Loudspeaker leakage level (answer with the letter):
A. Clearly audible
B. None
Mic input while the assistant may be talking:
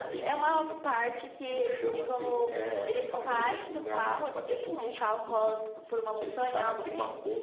A